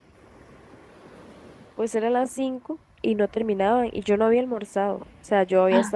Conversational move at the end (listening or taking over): listening